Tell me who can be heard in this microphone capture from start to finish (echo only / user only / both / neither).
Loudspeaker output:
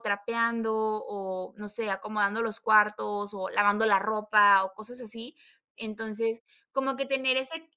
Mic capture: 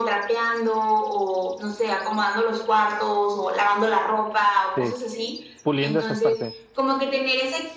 both